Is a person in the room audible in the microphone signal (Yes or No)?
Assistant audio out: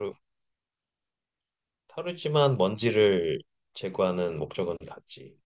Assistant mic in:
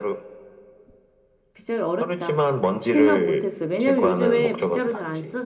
Yes